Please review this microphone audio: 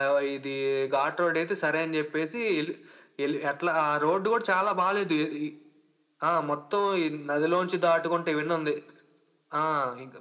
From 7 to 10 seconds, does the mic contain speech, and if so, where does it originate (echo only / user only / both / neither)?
echo only